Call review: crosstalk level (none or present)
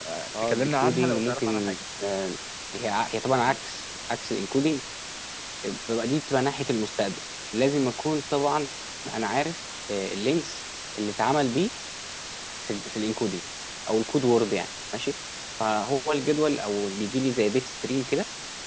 present